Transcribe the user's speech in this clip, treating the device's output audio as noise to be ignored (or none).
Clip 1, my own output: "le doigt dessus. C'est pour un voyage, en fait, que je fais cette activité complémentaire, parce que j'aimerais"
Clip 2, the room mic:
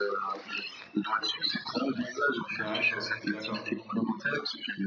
D'accord, d'accord.